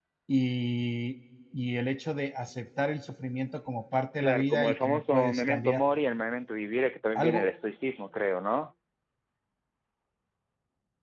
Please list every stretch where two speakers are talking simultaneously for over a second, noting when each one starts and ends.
4.2-5.8

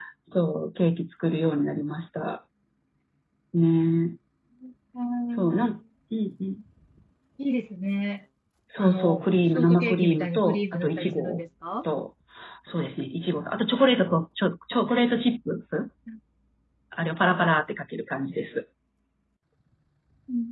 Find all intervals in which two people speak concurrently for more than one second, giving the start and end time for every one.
8.8-11.4

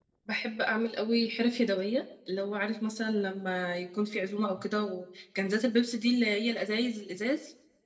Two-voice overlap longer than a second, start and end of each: none

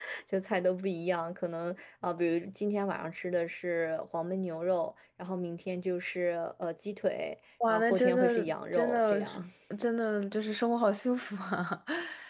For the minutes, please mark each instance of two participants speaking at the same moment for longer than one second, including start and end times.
7.7-9.2

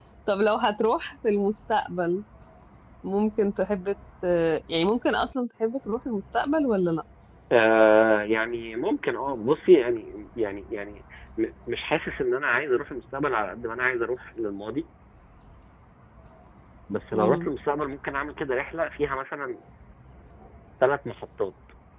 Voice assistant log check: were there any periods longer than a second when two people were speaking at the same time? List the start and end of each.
none

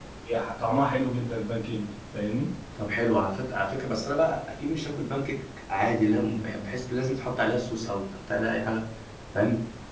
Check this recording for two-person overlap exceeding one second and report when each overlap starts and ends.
none

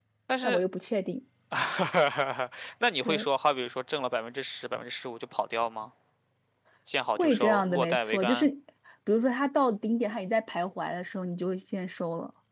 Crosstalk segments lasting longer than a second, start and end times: 7.2-8.5

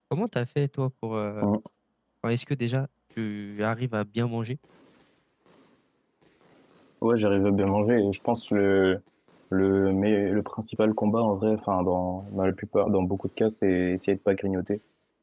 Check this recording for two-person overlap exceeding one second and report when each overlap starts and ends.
none

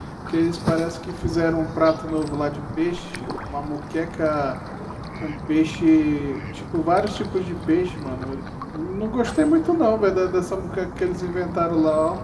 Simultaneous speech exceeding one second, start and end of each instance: none

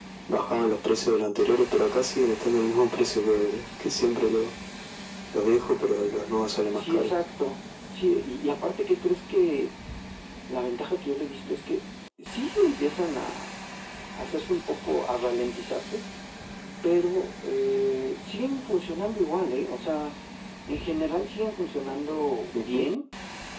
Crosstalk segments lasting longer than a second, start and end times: none

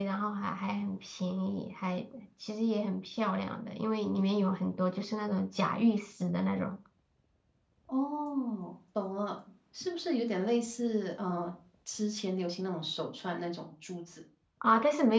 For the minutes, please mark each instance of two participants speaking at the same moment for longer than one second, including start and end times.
none

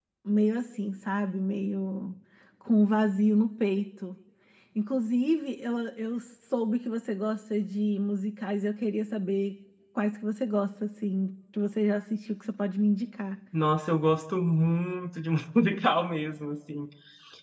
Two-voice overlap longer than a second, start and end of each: none

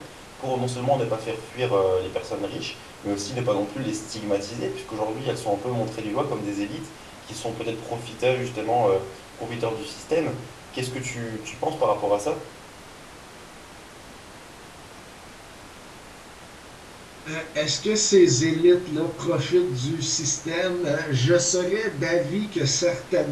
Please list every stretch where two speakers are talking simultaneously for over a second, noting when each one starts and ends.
none

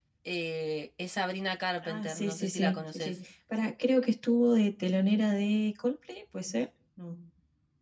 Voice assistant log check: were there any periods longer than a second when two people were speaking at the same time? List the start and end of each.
1.8-3.1

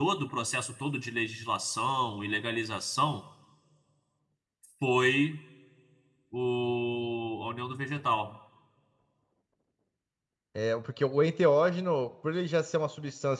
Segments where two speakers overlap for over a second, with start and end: none

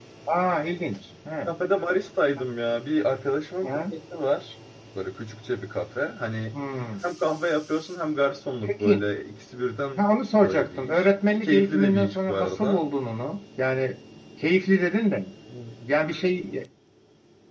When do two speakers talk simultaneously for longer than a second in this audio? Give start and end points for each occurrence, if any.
10.3-12.8

